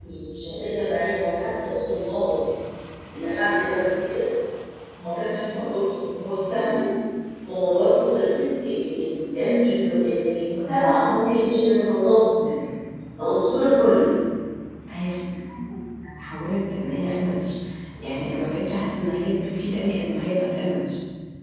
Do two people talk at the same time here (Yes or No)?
No